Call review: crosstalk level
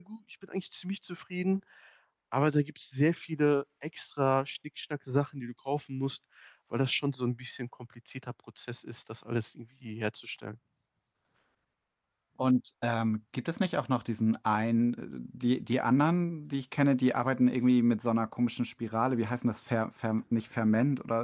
none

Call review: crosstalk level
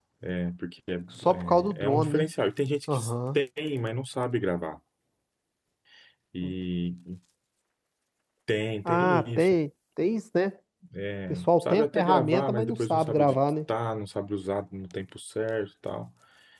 present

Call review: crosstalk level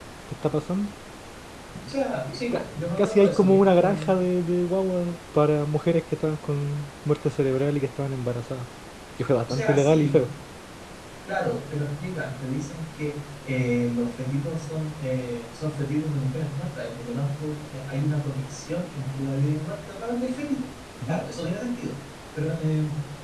present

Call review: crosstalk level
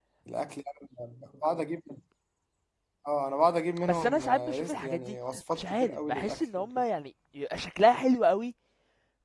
present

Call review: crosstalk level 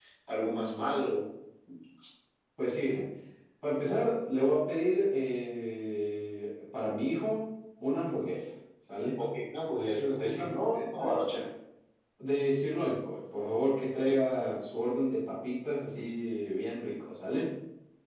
present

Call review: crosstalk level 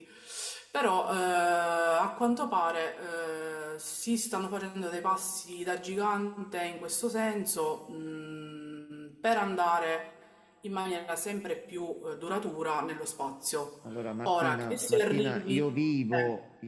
present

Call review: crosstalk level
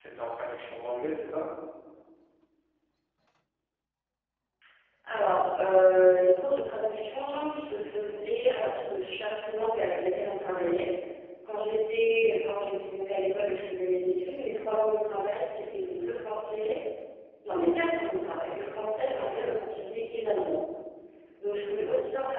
none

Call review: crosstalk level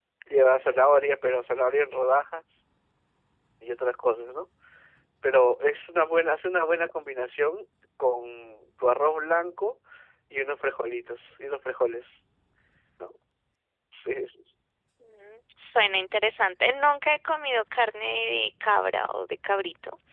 none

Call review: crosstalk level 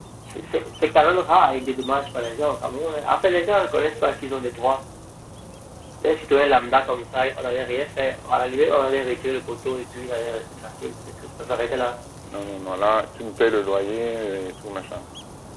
none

